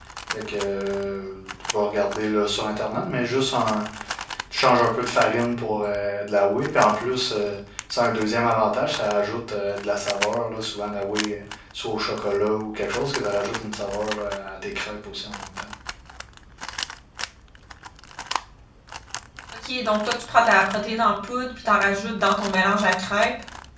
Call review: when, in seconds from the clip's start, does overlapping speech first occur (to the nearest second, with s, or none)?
none